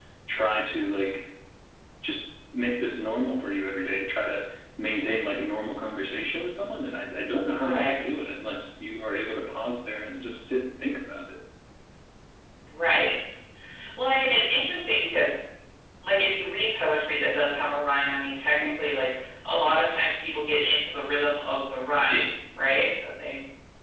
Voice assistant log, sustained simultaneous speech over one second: none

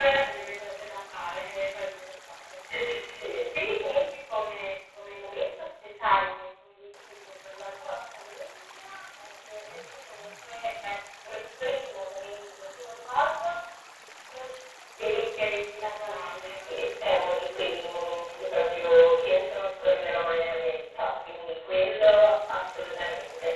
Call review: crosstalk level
none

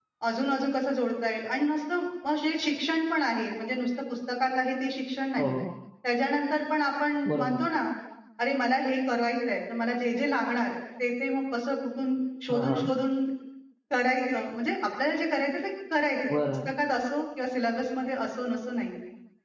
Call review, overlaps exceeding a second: none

